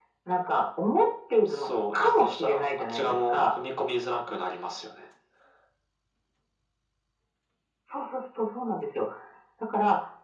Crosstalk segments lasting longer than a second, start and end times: 1.5-3.5

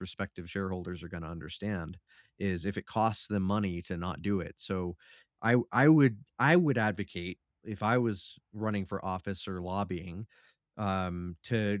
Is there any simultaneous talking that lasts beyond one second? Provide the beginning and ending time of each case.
none

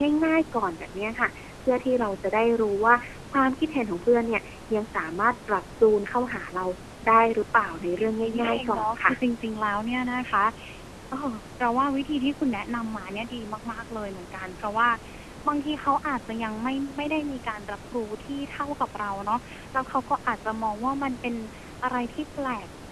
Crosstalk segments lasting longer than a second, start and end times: 7.8-9.2

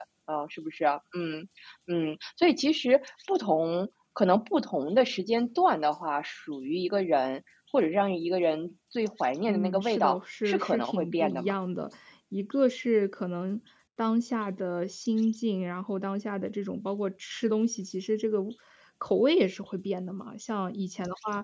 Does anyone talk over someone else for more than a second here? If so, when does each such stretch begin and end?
9.5-11.5

